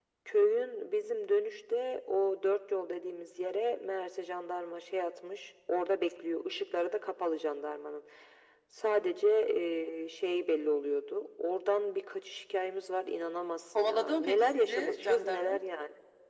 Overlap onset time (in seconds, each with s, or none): 13.8 s